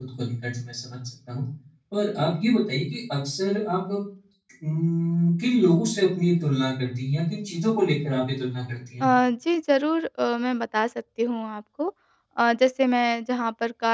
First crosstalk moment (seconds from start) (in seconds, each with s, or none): none